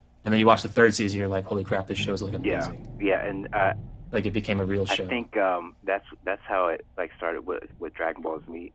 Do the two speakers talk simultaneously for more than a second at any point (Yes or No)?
No